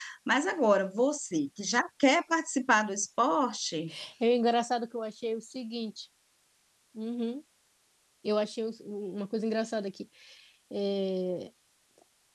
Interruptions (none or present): none